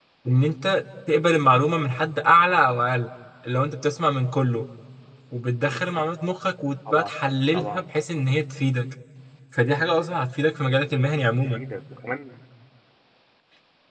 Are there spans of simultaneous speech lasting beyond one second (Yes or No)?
No